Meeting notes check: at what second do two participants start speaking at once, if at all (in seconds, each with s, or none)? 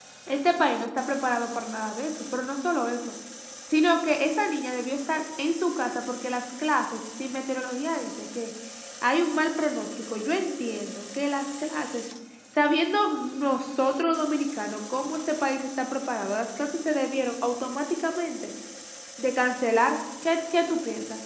none